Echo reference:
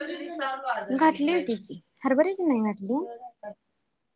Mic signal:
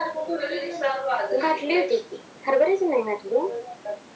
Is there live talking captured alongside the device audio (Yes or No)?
No